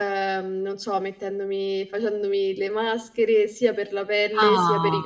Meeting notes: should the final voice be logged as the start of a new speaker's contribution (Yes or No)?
No